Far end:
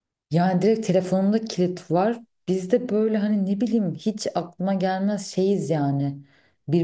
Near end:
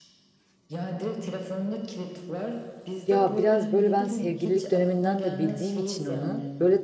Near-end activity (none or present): present